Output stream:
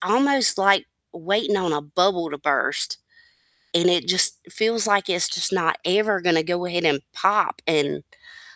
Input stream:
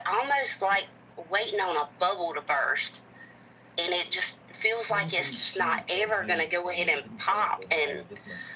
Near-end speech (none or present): present